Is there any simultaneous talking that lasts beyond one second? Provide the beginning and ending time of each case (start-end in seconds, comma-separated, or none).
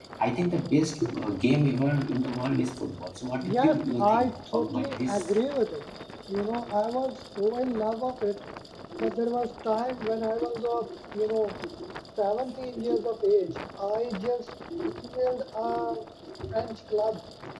3.4-5.2